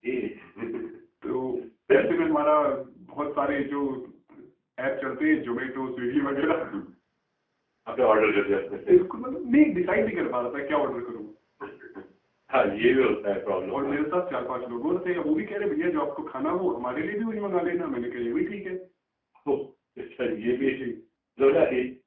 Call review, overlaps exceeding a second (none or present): none